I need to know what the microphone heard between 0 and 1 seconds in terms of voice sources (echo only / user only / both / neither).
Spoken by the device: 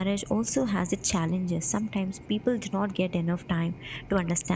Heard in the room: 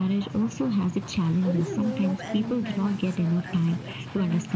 echo only